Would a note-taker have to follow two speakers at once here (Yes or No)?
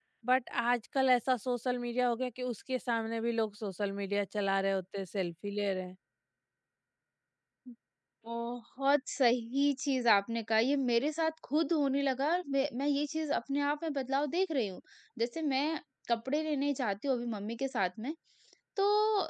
No